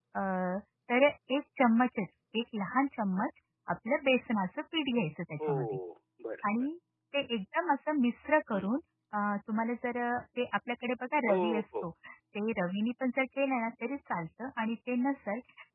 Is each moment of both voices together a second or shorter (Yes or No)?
Yes